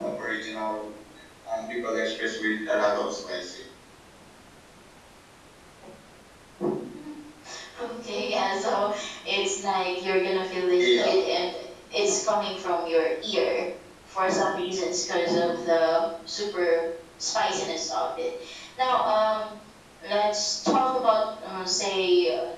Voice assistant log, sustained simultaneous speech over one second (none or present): none